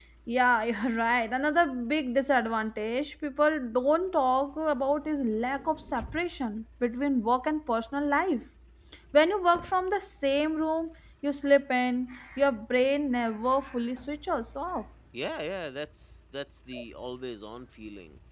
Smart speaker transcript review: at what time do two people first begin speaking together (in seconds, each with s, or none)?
none